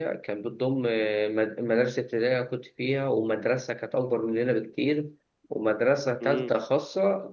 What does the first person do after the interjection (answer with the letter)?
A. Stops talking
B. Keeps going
B